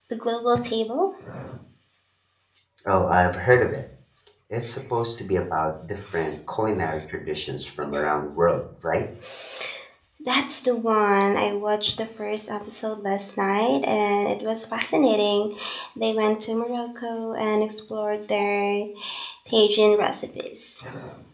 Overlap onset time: none

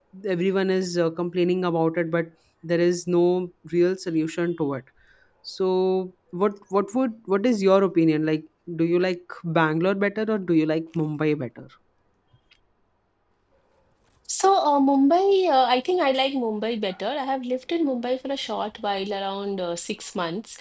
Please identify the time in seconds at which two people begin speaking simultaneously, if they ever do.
none

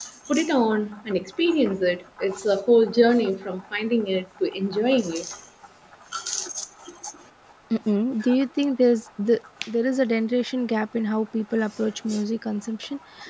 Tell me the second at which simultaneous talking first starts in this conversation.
none

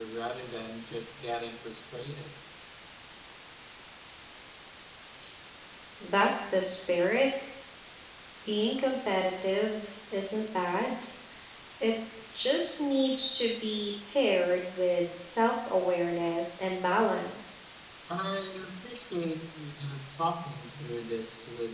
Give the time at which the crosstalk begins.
none

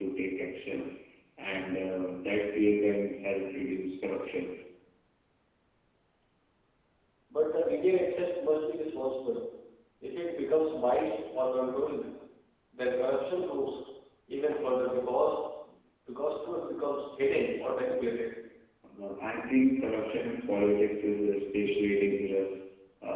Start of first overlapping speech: none

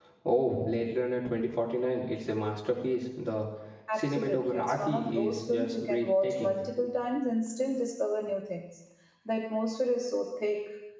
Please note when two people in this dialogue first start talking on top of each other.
3.9 s

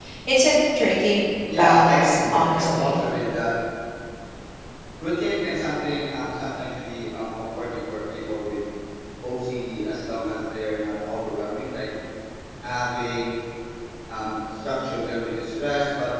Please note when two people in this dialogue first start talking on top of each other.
1.4 s

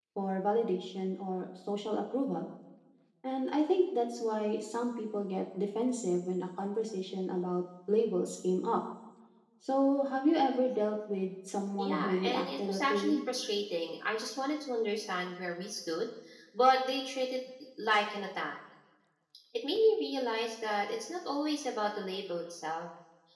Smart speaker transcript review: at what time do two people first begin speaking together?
11.8 s

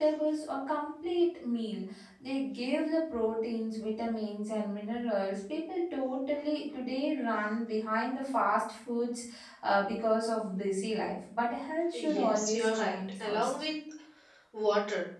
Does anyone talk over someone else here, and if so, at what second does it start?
11.9 s

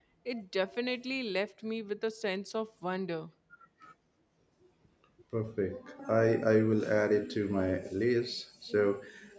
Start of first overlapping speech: none

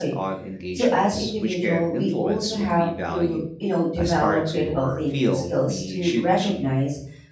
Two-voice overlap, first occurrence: 0.8 s

